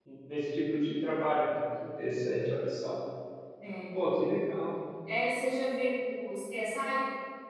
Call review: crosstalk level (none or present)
none